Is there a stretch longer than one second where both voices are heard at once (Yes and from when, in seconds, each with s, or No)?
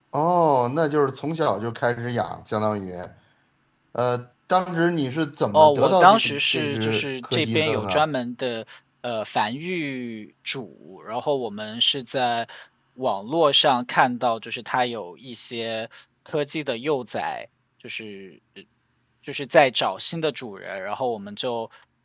Yes, from 5.5 s